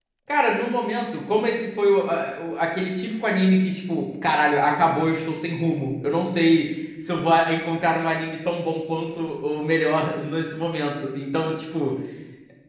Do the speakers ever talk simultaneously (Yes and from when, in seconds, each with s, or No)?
No